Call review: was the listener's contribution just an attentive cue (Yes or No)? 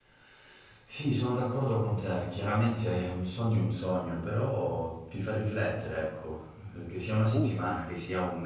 Yes